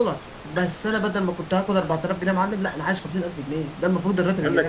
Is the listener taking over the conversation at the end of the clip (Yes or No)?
Yes